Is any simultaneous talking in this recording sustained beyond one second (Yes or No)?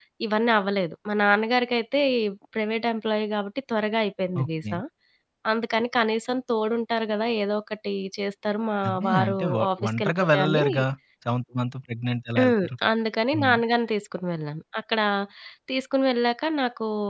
Yes